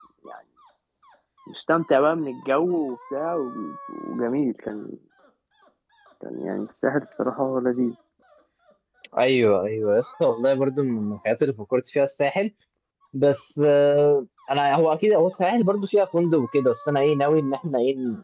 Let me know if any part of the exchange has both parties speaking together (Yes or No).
No